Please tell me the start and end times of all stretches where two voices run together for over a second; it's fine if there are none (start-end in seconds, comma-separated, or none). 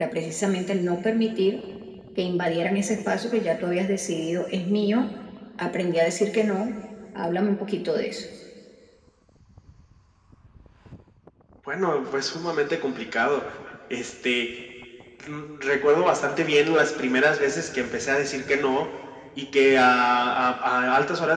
none